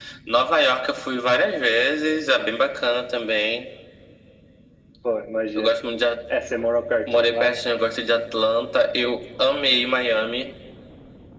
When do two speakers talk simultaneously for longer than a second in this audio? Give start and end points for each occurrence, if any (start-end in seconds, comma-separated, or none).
none